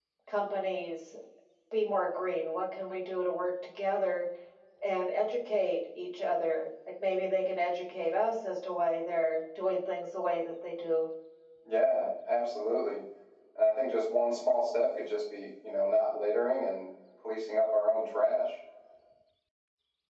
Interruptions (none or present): none